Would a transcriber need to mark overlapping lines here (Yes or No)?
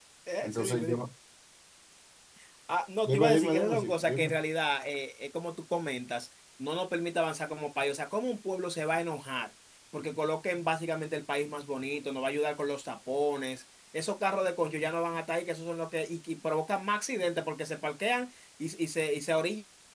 Yes